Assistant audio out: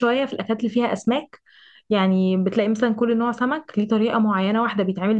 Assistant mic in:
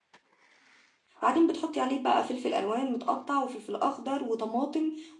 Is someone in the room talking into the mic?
Yes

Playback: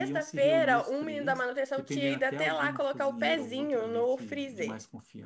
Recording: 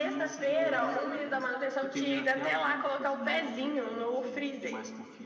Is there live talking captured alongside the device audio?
No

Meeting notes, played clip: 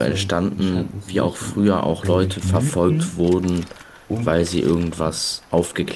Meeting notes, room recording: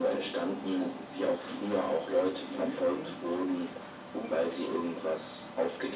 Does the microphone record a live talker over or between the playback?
No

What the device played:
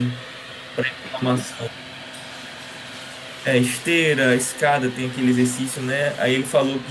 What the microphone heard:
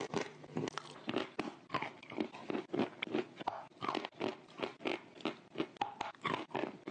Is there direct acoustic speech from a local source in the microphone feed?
No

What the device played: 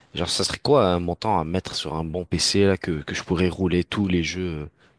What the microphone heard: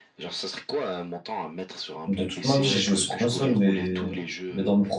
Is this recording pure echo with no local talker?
No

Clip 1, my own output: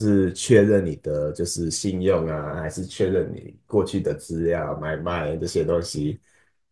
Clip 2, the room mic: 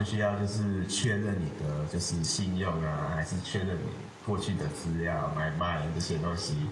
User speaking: No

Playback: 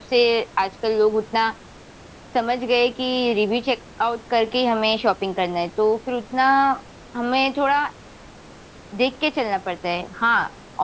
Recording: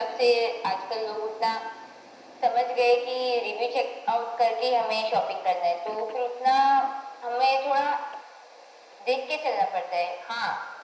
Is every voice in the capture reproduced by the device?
Yes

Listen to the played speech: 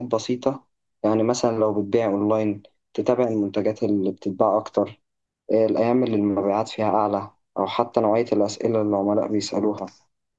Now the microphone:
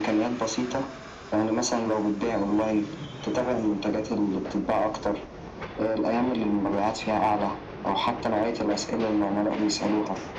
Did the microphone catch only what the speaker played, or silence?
Yes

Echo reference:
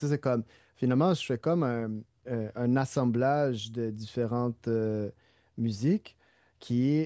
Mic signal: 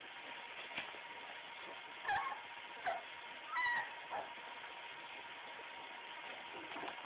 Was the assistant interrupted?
No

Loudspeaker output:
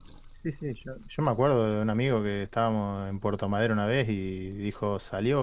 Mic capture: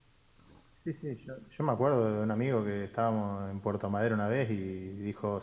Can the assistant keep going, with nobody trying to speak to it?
Yes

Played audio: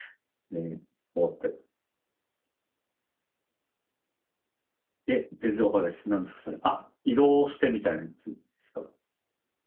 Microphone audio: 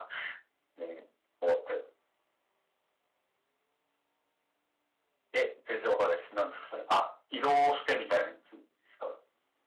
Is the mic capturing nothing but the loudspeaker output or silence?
Yes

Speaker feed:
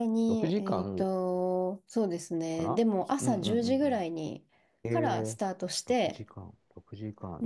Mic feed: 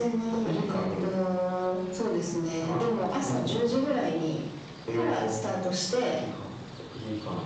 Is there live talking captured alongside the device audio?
No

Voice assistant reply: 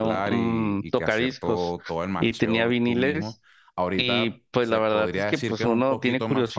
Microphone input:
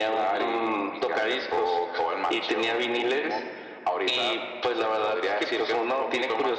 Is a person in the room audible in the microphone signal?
No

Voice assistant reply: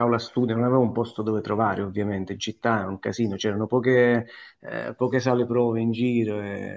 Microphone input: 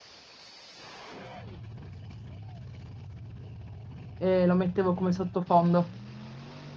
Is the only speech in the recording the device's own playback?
No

